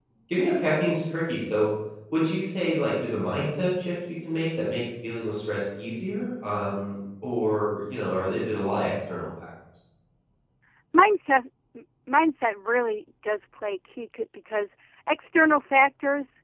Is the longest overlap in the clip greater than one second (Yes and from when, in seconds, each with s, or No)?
No